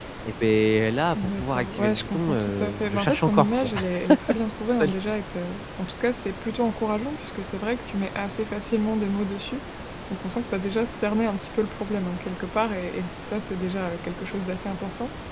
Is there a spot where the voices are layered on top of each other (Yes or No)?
Yes